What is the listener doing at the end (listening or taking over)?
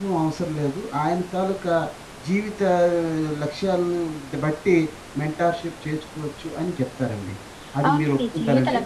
taking over